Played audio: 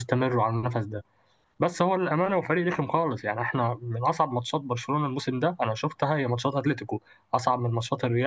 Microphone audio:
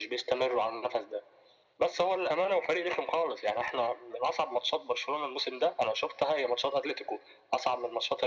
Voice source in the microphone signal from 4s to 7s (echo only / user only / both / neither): echo only